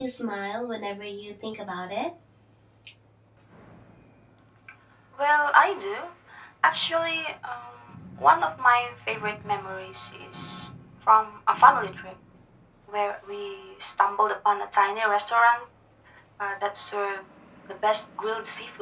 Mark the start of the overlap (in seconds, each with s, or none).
none